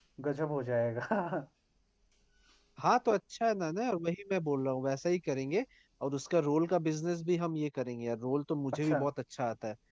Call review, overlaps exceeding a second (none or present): none